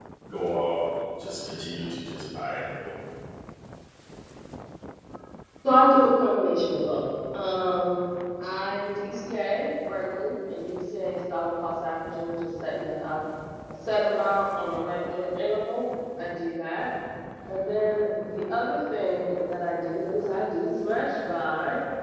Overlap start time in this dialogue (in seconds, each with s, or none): none